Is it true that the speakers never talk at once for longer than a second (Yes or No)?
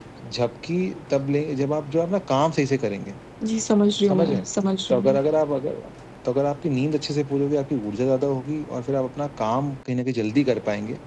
Yes